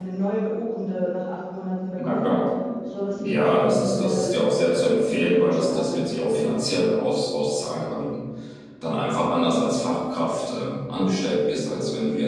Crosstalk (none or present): present